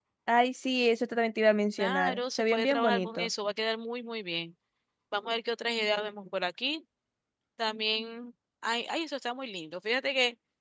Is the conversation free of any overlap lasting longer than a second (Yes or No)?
No